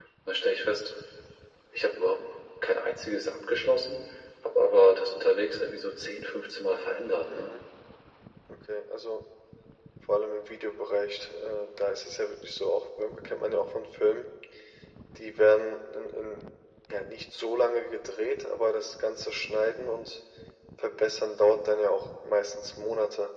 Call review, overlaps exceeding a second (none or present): none